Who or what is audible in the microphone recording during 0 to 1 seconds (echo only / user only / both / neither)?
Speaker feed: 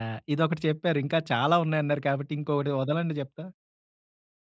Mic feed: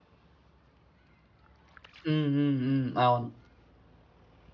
neither